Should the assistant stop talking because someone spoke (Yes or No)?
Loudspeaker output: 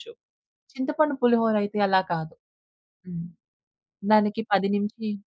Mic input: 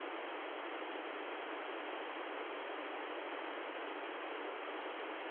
No